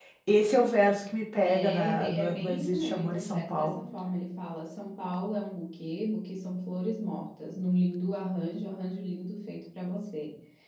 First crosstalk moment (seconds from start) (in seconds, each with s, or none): 1.4 s